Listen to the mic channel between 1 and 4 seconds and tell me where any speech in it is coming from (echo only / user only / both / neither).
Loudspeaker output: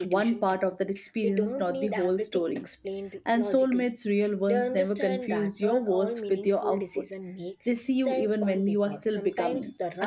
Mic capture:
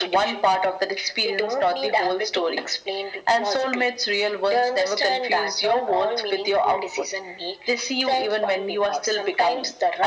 echo only